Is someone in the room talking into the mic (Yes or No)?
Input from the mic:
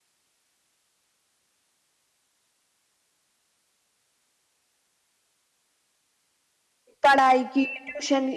Yes